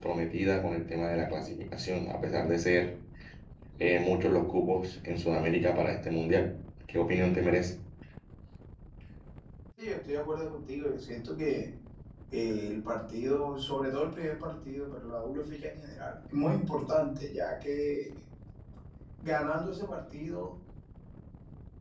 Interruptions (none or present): none